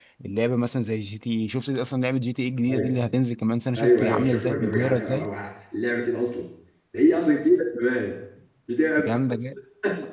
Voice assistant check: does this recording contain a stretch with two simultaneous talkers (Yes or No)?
Yes